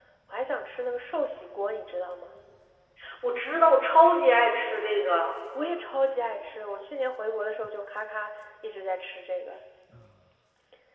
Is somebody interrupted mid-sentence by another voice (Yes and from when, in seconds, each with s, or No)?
No